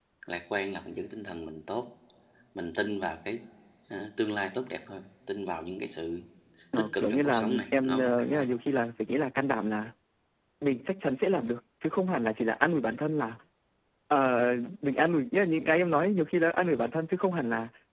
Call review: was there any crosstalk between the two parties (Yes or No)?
Yes